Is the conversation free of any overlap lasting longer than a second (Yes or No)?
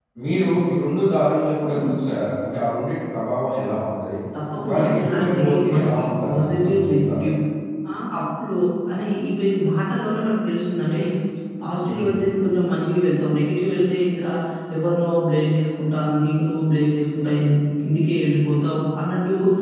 No